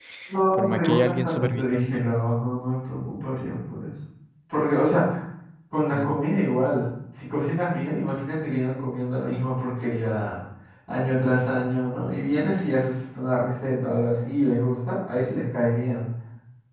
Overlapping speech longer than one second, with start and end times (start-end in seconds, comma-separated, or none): 0.5-2.0